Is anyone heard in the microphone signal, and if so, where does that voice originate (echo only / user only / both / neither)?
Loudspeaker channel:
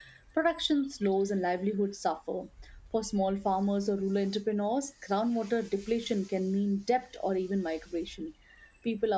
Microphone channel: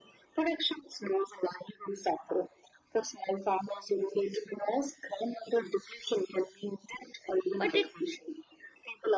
both